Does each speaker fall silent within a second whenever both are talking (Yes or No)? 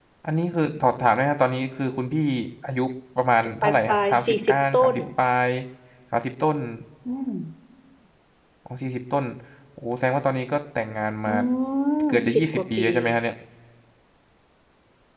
No